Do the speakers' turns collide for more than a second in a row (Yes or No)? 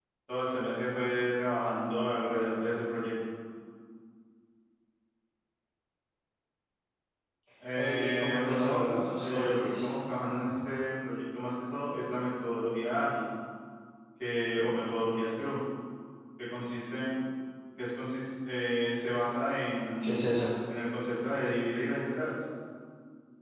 Yes